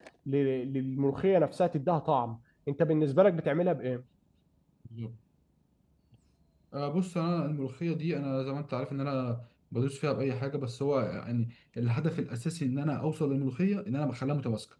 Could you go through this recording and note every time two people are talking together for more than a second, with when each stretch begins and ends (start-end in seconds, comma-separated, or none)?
none